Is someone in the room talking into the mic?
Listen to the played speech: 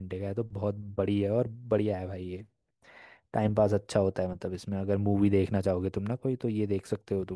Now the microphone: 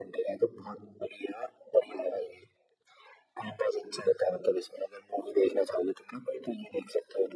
No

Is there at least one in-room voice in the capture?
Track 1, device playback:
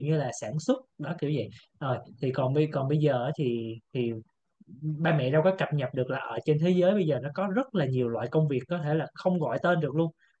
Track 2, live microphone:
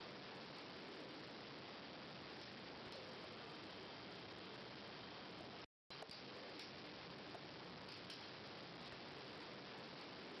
No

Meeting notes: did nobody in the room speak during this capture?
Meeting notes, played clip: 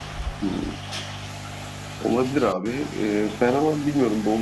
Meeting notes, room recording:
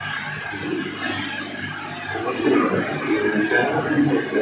Yes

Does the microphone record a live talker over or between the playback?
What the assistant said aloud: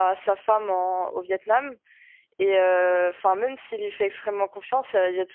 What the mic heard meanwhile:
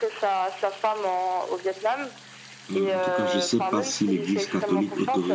Yes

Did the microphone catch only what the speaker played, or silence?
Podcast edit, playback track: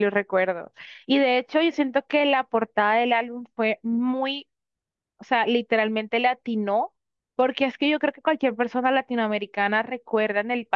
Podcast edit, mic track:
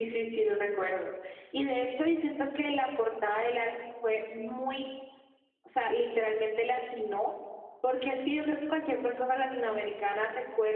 Yes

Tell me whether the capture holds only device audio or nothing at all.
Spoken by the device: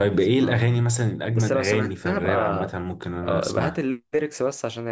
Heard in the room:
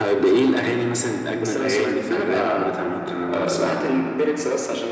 Yes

